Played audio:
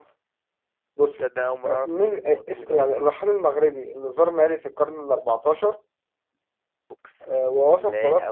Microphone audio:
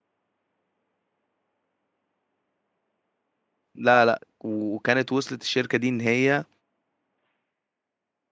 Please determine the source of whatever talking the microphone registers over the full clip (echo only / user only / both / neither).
user only